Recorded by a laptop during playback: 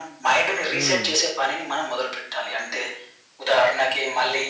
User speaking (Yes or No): Yes